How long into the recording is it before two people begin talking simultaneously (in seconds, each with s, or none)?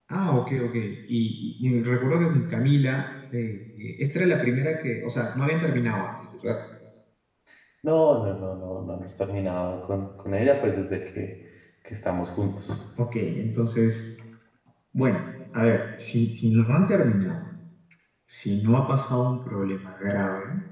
none